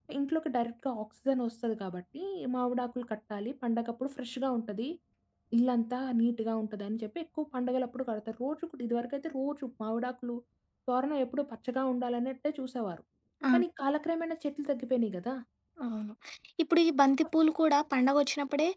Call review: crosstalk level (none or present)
none